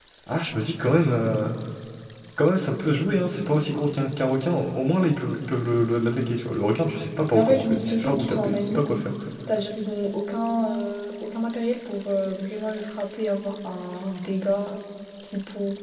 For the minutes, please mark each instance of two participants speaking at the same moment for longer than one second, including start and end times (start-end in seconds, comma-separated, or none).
7.3-8.8